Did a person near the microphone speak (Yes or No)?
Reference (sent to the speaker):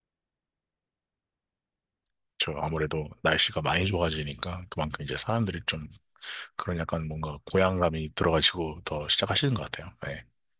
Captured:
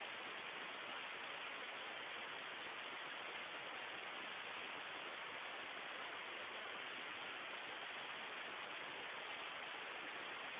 No